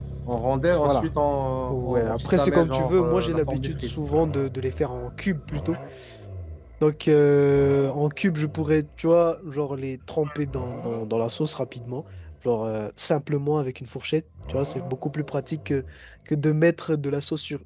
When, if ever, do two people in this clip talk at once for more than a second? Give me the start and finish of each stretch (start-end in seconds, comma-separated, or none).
1.7-3.9